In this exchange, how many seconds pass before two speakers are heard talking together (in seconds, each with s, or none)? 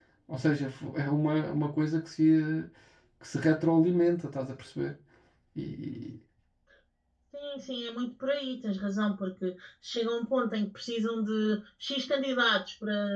none